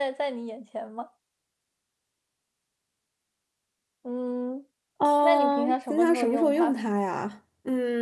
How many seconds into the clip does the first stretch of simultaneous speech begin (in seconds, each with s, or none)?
5.2 s